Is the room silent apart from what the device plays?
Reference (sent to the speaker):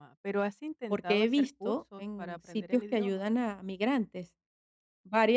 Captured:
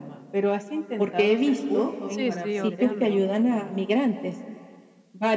No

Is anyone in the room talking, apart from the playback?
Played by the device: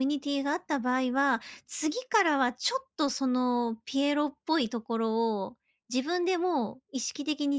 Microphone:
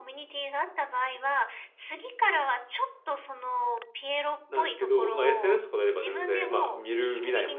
Yes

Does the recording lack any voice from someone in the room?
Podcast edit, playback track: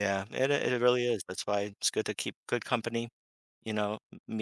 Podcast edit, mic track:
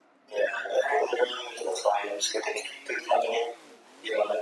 Yes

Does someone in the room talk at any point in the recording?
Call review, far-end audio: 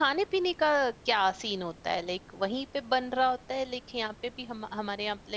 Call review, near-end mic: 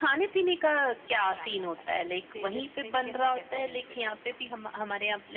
Yes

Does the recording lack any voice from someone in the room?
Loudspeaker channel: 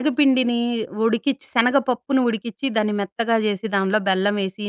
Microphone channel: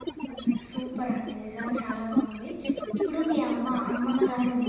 No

